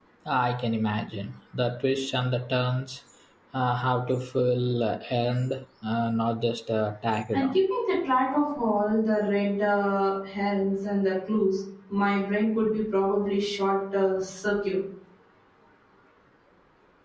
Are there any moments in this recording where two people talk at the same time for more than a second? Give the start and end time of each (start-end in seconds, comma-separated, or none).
none